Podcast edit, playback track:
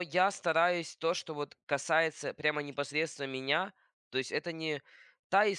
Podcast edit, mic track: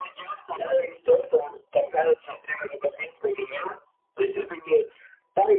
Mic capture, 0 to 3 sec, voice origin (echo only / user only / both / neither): echo only